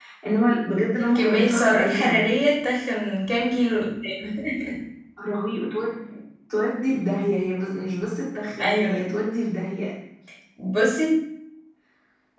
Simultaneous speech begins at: 1 s

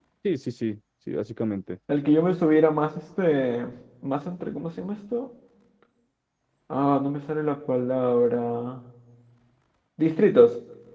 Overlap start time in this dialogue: none

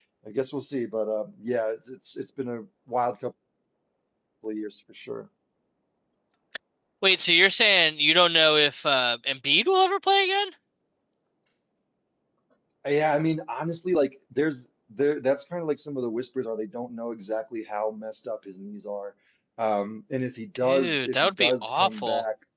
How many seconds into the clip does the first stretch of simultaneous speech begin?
21 s

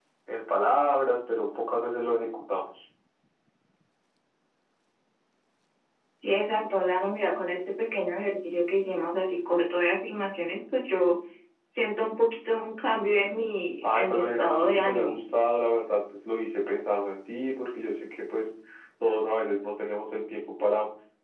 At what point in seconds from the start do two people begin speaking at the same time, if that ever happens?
14 s

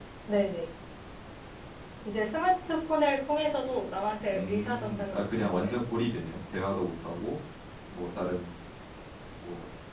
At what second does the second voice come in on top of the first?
4 s

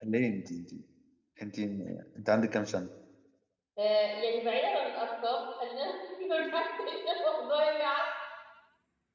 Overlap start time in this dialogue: none

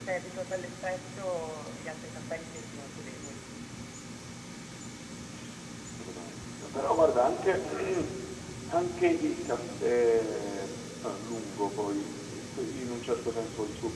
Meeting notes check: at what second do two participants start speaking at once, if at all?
none

